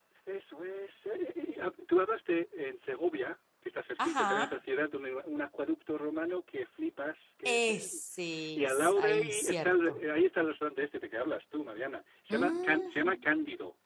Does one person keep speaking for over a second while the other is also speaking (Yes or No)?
Yes